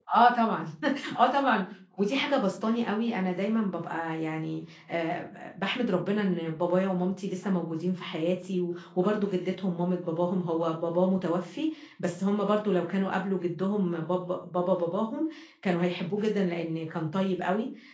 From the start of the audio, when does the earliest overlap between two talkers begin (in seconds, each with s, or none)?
none